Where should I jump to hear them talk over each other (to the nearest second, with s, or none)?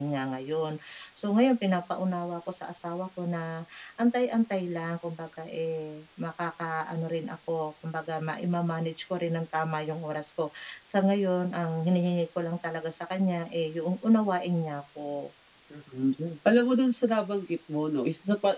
none